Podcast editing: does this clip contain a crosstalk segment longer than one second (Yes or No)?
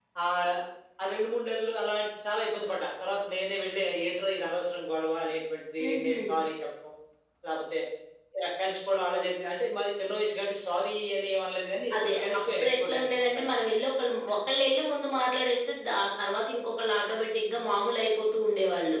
Yes